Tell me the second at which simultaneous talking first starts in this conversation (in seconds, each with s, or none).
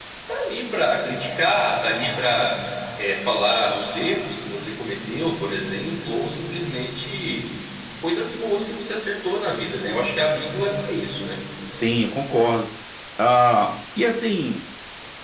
none